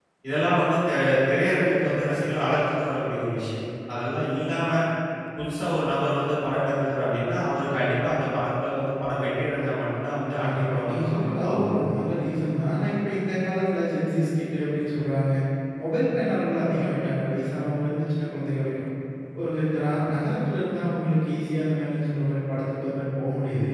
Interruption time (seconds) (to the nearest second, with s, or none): 10 s